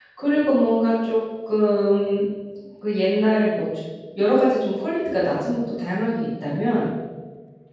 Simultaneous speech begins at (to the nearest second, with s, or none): none